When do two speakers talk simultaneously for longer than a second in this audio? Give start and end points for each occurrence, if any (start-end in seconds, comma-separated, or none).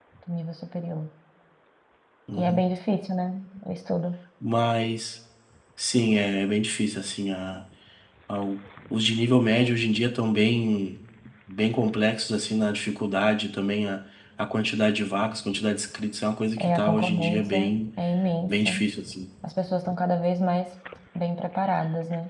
16.6-17.8